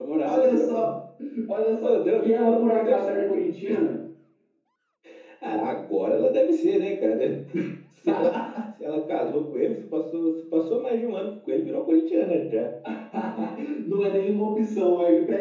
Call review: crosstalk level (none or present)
present